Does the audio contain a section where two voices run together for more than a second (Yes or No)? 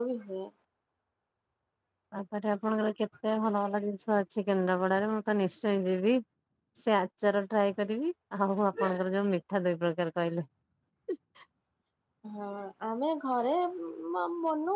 No